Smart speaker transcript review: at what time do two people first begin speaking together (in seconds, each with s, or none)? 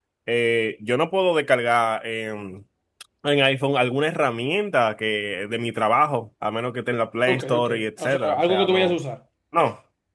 7.3 s